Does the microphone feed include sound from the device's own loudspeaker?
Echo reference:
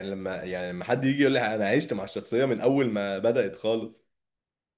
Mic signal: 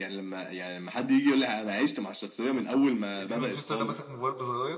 Yes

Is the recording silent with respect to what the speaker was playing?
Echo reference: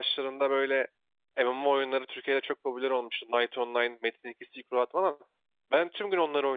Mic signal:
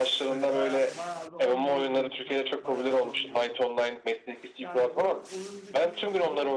No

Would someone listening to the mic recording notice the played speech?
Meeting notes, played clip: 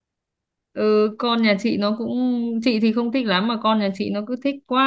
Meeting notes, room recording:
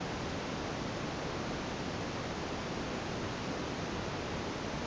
No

